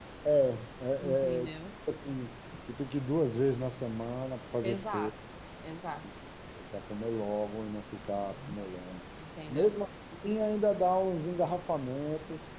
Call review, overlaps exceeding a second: none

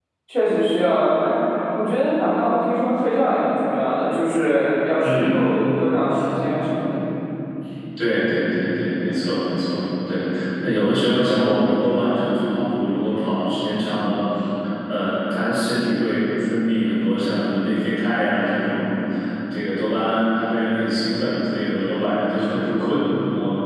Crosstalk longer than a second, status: none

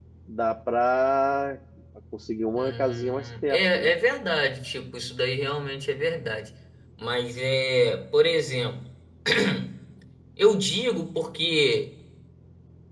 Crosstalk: present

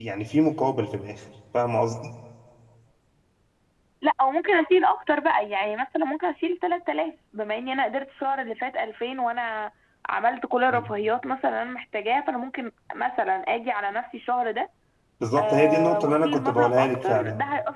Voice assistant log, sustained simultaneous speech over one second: present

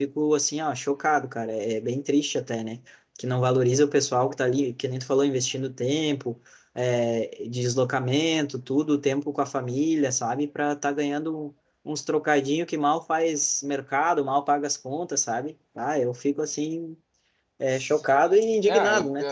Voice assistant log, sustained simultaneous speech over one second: present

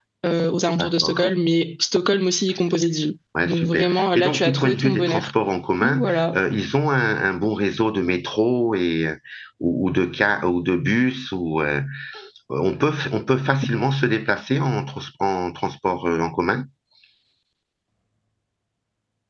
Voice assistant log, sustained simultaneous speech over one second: present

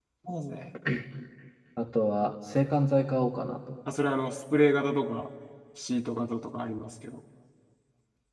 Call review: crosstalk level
none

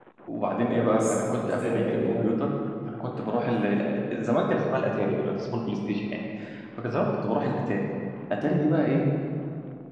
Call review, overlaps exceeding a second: present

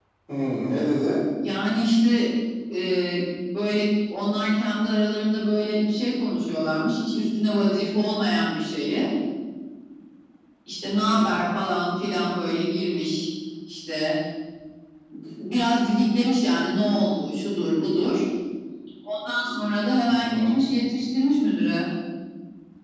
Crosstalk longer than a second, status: none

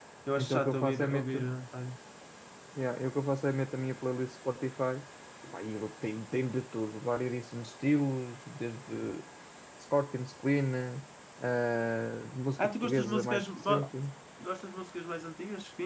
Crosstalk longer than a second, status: present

